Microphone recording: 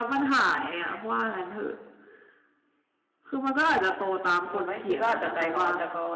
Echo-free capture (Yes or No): No